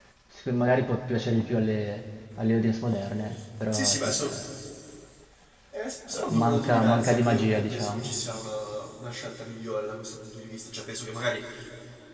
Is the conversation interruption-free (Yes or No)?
No